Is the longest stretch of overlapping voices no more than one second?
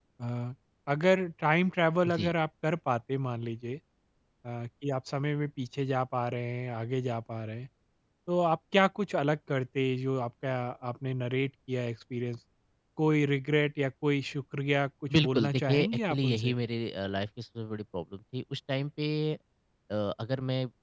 No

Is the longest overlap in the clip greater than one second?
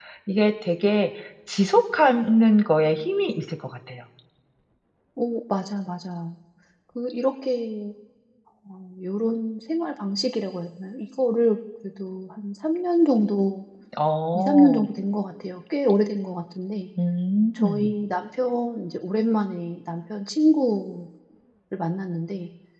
No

